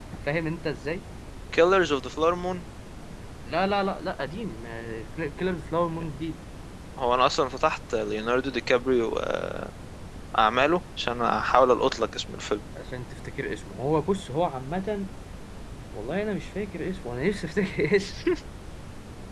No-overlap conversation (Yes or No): Yes